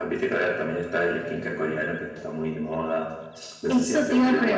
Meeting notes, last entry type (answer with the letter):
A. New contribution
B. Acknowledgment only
A